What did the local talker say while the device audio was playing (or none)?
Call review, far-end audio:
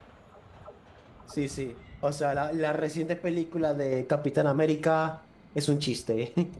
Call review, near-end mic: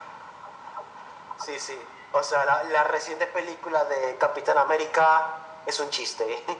none